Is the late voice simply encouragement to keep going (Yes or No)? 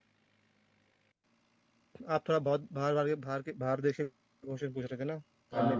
Yes